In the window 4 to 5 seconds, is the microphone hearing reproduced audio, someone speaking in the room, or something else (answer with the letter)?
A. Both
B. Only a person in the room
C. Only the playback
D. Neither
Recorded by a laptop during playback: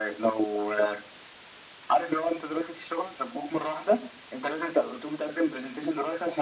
C